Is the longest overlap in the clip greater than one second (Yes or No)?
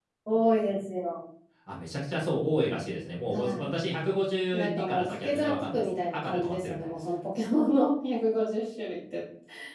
Yes